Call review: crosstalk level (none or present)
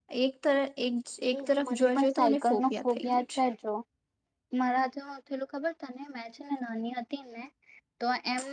present